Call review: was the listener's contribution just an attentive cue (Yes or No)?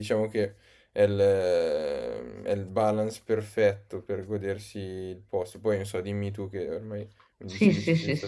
No